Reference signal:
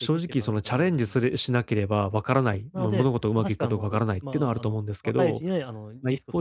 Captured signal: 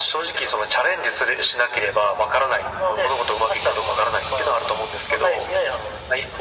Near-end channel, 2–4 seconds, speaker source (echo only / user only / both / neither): echo only